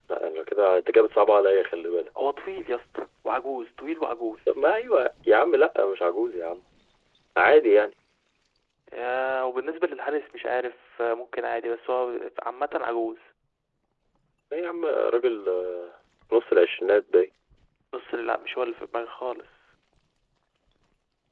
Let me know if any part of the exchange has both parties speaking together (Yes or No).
No